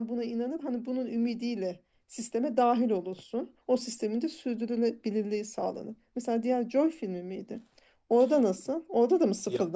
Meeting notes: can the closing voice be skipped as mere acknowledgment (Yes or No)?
No